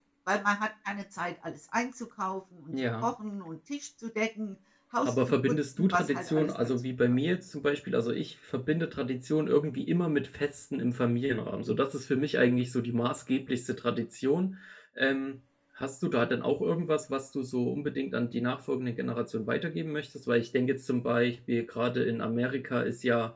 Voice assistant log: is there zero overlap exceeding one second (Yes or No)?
No